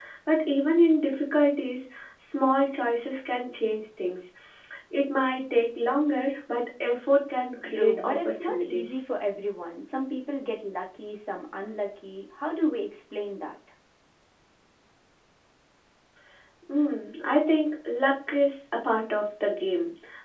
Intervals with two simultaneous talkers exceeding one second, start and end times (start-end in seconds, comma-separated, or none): 7.6-8.9